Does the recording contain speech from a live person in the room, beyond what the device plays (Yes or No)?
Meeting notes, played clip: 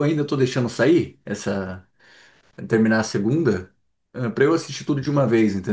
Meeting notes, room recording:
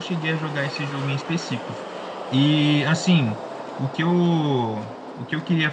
Yes